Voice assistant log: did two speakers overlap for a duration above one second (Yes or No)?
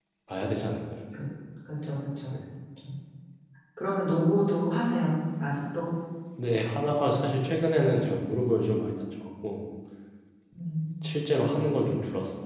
No